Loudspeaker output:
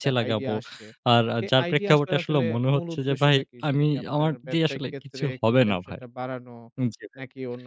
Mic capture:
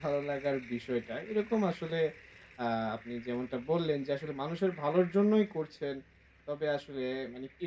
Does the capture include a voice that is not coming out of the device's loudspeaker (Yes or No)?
Yes